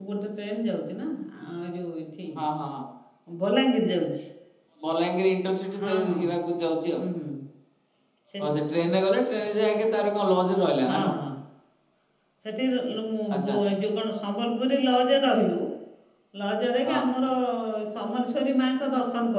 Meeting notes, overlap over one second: none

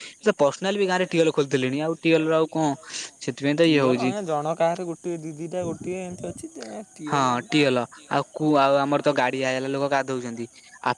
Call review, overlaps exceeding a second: none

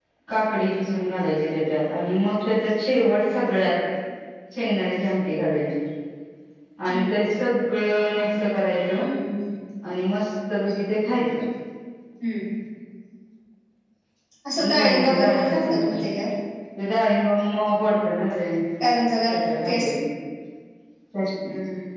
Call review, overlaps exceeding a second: present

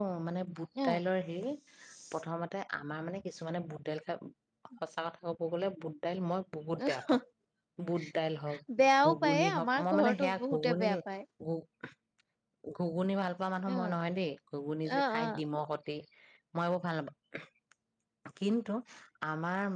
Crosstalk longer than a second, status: present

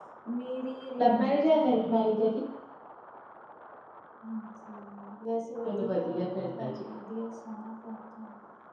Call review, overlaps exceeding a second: present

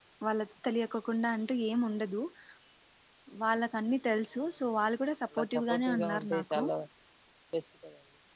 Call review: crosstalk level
present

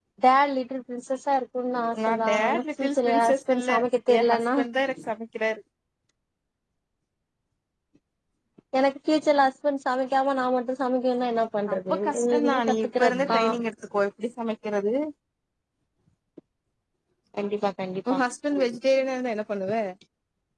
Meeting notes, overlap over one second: present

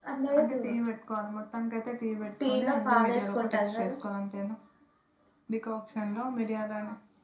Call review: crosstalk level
present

